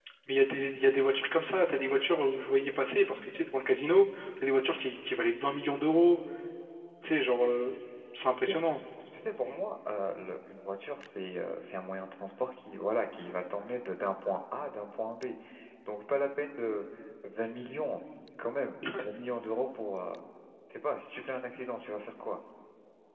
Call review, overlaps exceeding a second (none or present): none